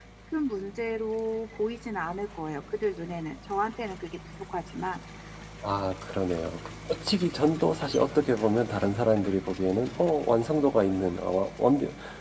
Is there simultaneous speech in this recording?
No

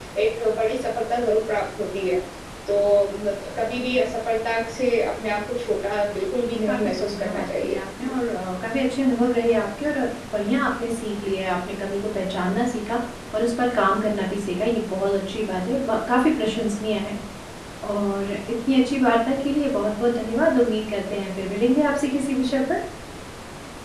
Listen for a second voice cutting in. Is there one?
Yes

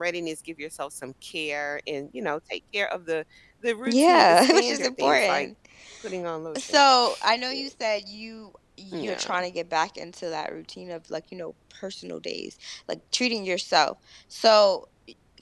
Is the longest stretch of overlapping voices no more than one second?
No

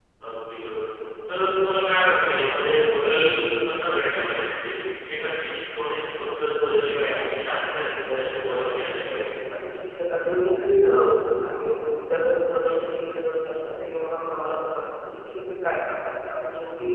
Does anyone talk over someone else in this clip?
Yes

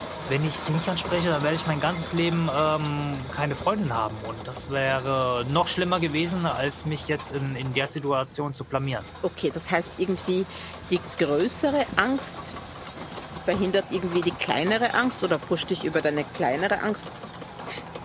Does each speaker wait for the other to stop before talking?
Yes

